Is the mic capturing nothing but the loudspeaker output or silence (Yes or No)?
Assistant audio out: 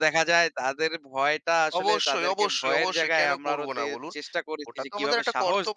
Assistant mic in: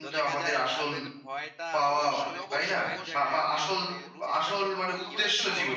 No